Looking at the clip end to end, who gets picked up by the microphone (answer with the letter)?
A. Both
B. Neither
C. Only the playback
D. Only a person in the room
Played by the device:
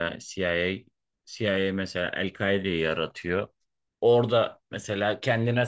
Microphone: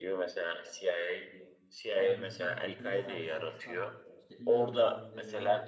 A